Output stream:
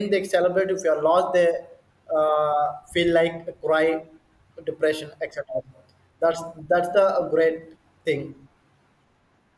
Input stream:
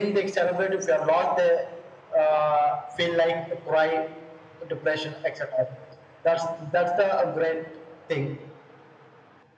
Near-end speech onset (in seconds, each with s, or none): none